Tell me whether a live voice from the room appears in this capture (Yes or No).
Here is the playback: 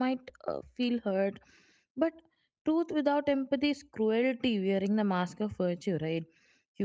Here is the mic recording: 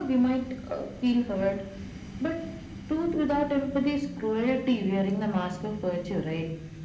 No